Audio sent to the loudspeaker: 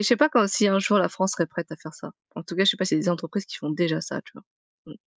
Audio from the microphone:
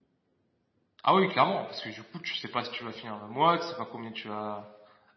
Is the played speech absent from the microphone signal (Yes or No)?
Yes